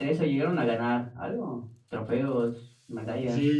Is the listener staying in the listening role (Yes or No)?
No